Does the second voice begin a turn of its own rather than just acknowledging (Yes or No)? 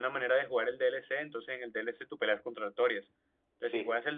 No